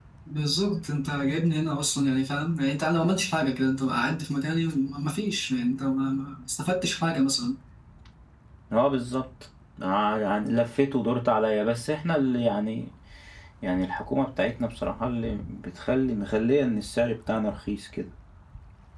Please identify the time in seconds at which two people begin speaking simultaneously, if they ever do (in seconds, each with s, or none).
none